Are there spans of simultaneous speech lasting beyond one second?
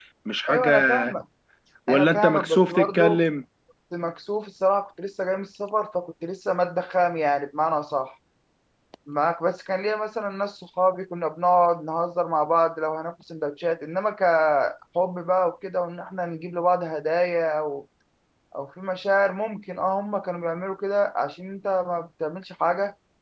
Yes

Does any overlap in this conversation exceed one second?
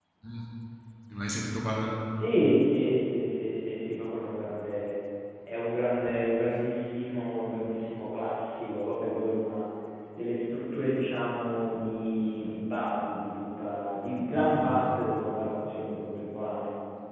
No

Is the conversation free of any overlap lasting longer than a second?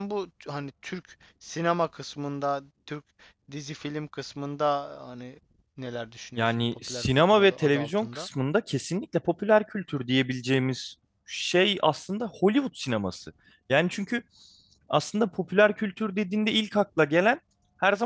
No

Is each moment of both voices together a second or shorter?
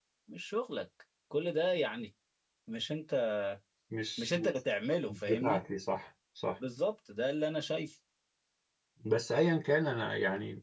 Yes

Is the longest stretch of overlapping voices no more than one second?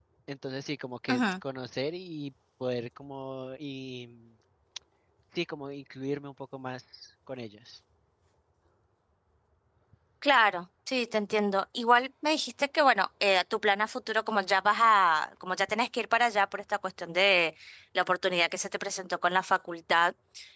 Yes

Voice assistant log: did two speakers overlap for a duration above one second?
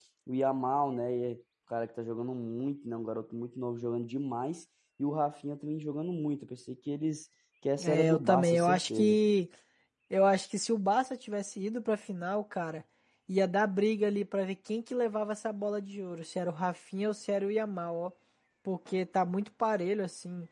Yes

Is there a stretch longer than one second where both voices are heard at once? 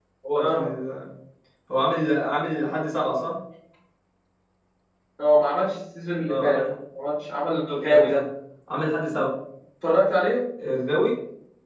No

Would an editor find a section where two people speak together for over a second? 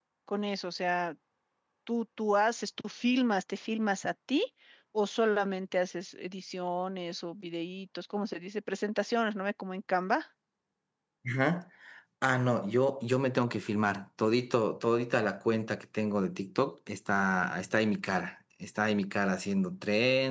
No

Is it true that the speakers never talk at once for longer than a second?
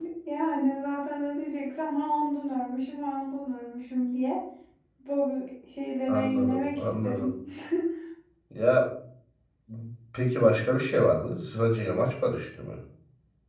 No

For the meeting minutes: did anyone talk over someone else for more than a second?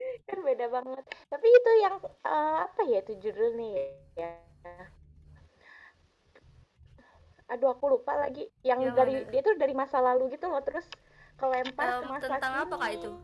Yes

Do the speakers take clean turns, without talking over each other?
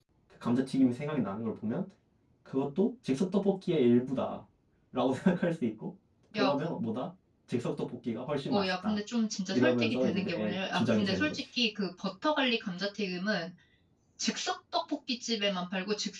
No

